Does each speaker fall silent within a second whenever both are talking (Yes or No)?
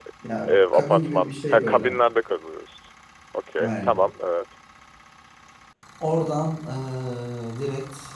No